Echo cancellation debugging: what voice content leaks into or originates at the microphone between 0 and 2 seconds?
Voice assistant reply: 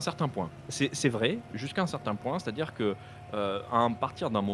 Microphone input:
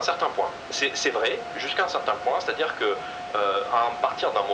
echo only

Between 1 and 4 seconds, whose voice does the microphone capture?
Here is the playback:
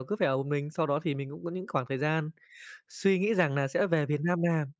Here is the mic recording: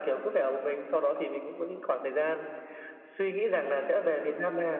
echo only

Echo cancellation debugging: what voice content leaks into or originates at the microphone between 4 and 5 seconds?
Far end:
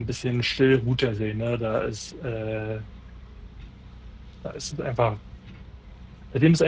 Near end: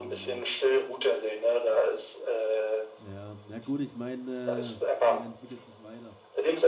both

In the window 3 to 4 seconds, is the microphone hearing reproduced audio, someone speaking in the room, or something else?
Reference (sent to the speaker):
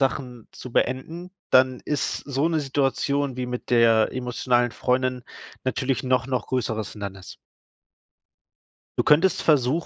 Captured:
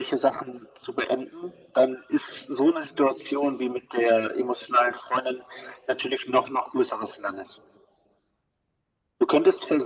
echo only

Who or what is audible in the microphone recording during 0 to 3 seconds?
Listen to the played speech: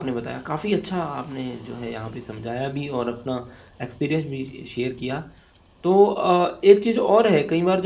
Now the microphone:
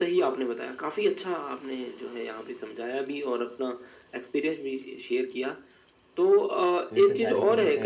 echo only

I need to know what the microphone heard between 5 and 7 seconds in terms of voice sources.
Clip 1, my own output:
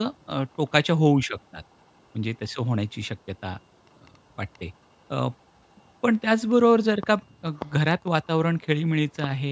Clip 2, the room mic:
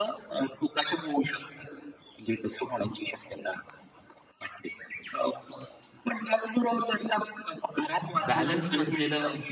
echo only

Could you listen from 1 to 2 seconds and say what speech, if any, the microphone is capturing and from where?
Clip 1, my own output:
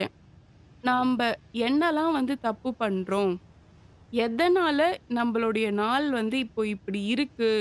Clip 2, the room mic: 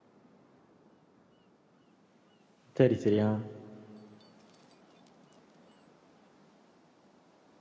neither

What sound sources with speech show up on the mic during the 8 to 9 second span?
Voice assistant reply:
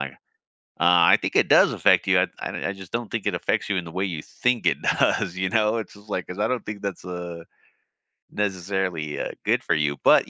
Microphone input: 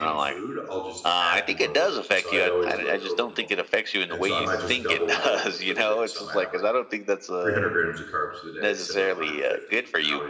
both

